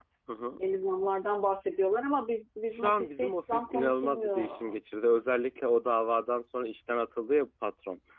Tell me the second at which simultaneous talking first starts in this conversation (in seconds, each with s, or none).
2.7 s